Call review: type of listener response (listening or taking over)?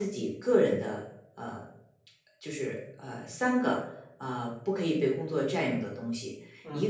listening